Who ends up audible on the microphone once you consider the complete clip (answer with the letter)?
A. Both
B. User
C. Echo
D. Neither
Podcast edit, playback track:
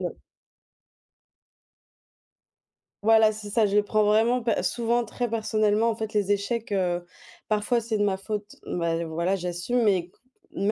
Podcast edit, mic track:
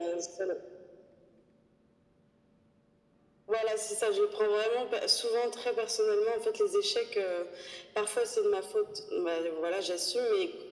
C